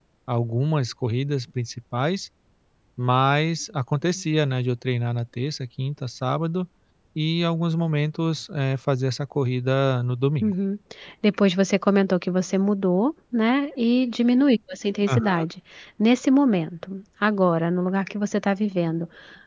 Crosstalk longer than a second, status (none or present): none